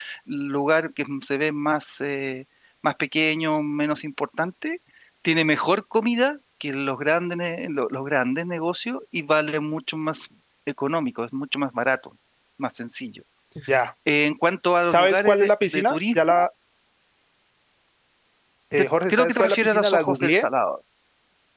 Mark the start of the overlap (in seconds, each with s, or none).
14.9 s